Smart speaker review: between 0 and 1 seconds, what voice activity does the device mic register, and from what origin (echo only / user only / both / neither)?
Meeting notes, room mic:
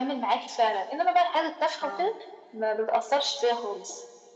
echo only